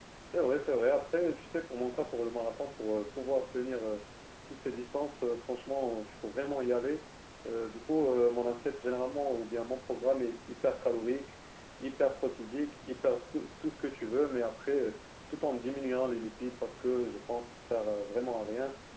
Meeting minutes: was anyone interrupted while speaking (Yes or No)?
No